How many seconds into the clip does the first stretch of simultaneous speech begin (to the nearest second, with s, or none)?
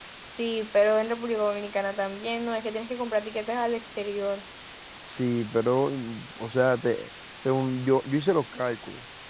none